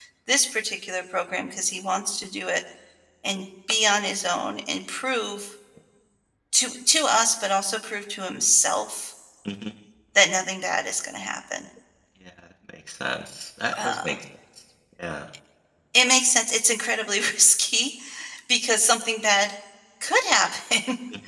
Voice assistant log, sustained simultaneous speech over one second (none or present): none